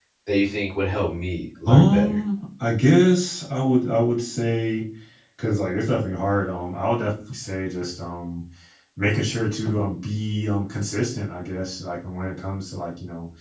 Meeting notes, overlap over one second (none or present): none